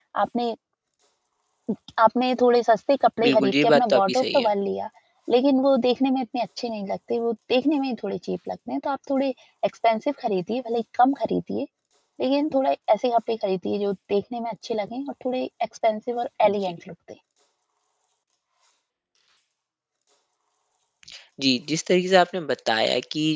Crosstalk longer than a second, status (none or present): present